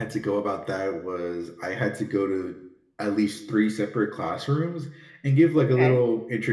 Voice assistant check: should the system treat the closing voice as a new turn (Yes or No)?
No